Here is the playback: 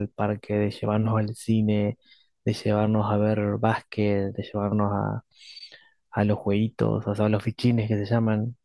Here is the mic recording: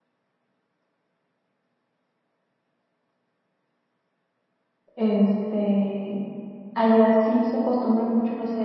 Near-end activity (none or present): present